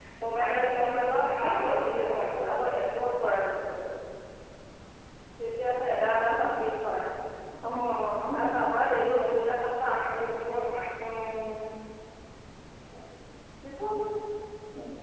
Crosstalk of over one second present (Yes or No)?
Yes